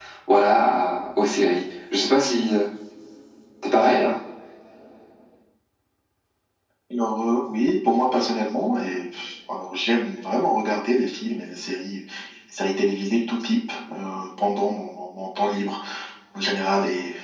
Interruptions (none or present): none